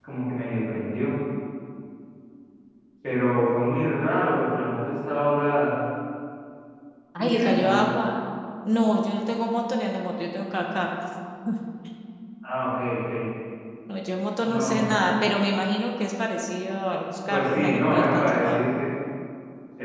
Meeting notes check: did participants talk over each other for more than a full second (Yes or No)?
Yes